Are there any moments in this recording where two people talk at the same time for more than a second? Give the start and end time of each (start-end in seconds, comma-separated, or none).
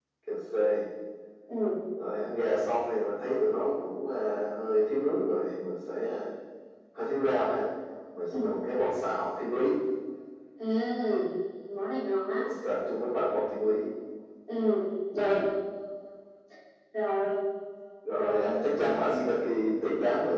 18.2-19.4